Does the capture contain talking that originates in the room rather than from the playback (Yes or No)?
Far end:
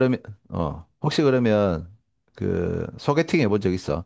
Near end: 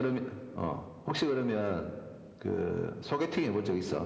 No